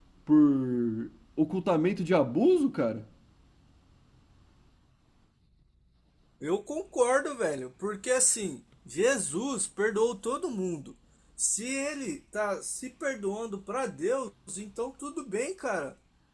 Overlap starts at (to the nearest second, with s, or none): none